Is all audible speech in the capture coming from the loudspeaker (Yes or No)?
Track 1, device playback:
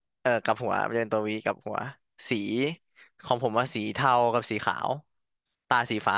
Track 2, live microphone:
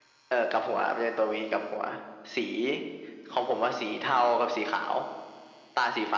Yes